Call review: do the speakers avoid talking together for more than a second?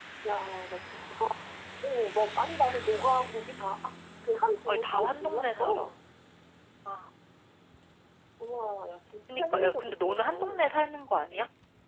No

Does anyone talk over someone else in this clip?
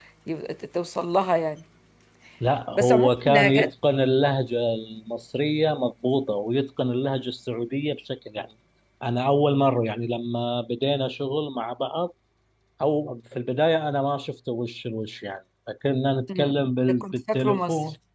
Yes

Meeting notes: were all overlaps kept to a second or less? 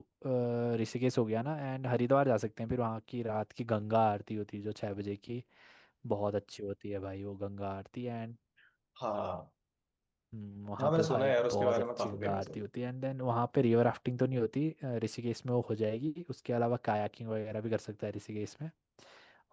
No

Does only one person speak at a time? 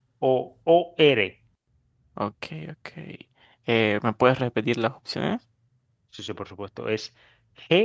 Yes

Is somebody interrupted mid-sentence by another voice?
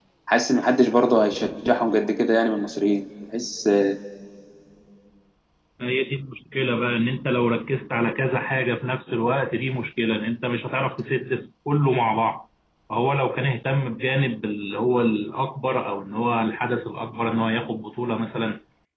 No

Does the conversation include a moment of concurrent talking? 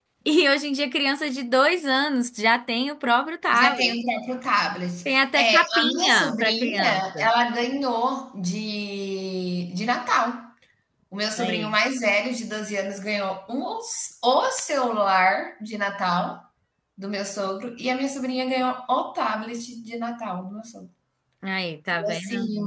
Yes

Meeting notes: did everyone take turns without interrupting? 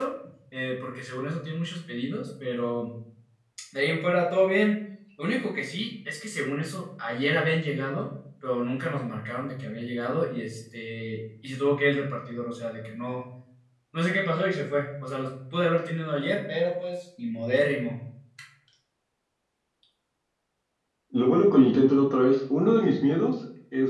Yes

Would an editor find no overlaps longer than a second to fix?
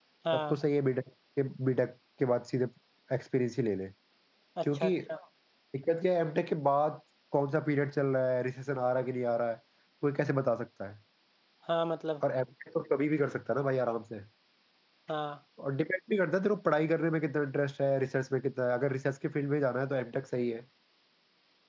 Yes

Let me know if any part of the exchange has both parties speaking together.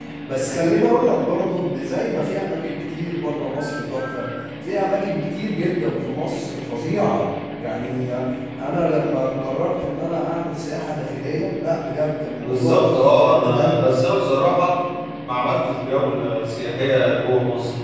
Yes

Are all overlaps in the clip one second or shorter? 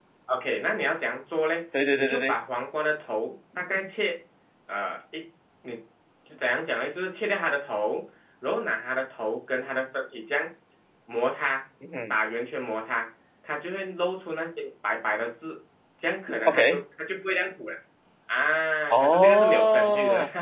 No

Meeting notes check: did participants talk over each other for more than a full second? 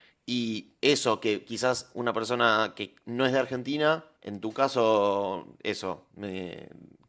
No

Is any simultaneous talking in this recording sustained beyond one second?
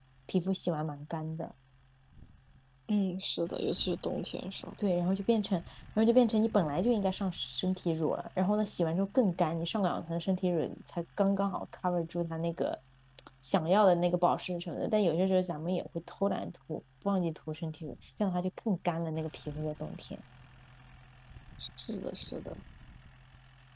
No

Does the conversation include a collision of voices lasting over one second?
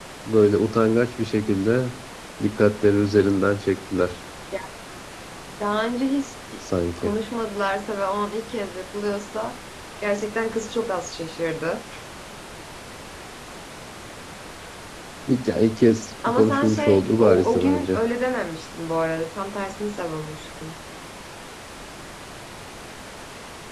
Yes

